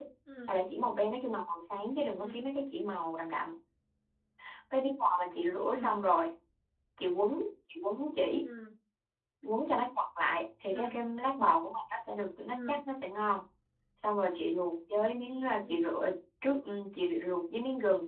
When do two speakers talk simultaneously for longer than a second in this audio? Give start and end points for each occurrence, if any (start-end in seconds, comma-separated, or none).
none